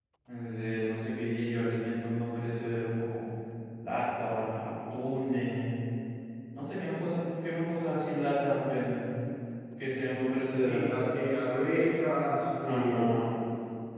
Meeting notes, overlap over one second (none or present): none